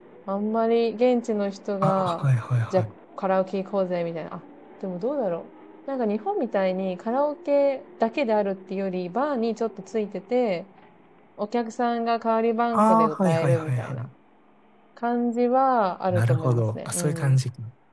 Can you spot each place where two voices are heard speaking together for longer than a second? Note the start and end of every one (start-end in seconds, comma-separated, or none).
12.7-14.1, 16.1-17.4